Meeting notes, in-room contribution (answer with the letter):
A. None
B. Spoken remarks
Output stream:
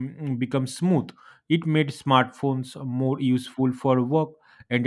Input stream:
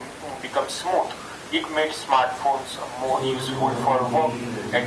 B